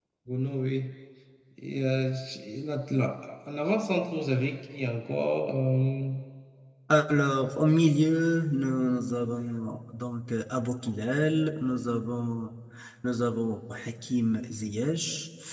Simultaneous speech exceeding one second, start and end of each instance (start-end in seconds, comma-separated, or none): none